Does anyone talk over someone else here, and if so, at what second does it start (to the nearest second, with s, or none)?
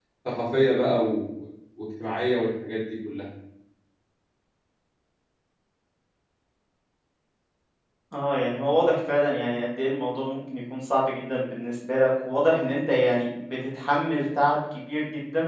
none